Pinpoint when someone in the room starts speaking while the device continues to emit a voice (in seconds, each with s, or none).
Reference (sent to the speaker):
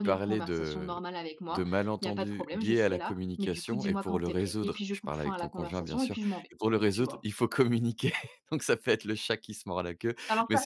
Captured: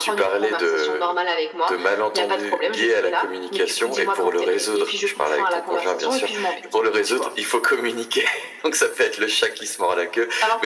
none